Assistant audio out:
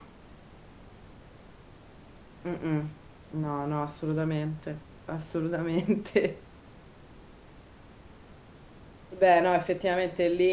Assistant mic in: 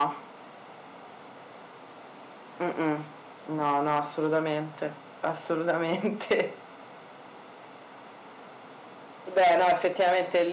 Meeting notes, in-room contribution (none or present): none